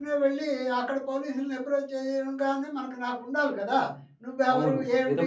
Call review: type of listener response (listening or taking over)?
taking over